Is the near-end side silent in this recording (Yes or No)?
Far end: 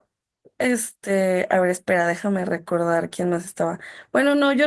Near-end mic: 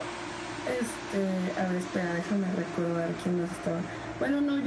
Yes